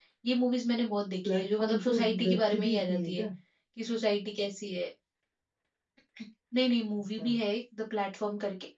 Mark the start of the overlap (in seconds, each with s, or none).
1.2 s